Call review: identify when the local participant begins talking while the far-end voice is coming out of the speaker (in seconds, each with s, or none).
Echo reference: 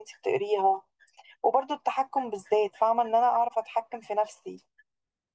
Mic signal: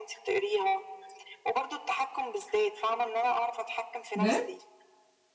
4.1 s